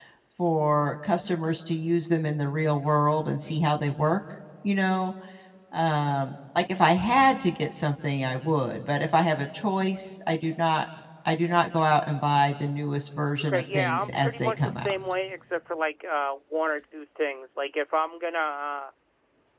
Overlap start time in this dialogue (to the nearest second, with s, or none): 13 s